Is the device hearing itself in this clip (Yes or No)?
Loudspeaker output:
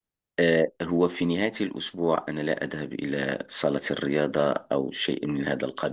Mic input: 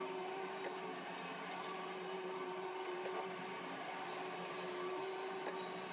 No